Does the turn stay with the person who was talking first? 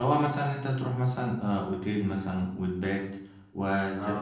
Yes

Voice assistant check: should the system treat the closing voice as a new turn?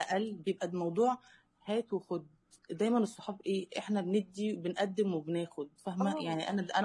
No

